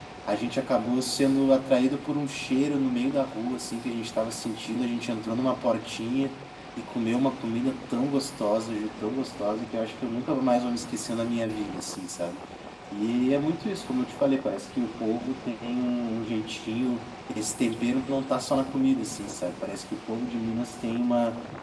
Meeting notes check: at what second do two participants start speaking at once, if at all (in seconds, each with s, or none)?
none